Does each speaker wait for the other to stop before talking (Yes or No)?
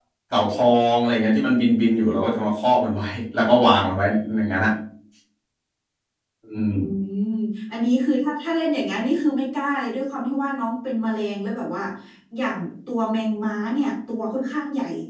Yes